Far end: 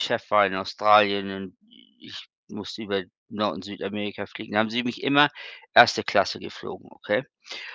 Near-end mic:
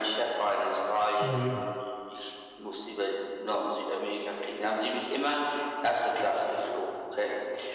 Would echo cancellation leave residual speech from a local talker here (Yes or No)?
Yes